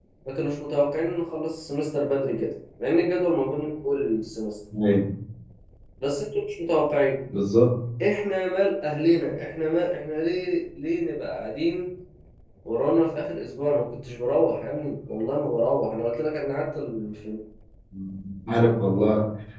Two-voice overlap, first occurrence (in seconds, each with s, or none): none